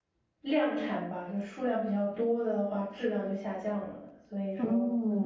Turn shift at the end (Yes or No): Yes